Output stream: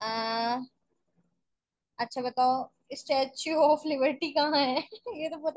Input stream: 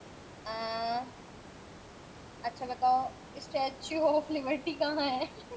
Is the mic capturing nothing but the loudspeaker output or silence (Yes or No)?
Yes